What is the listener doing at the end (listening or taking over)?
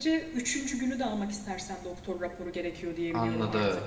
taking over